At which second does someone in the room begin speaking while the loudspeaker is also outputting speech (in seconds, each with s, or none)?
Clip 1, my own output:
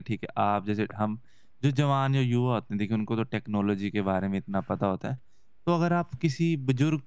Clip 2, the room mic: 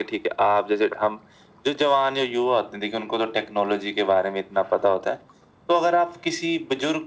none